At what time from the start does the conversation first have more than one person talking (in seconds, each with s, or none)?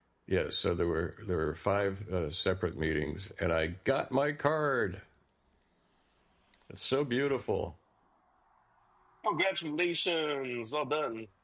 none